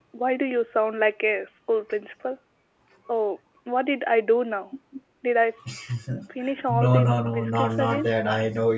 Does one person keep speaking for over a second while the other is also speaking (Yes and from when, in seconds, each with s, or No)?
Yes, from 6.7 s